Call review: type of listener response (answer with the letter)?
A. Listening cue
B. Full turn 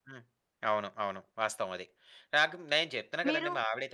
A